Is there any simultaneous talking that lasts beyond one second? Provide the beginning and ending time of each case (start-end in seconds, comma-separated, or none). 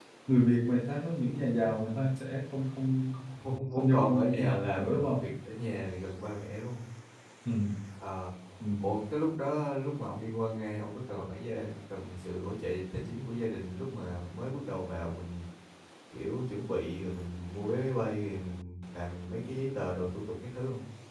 3.8-5.3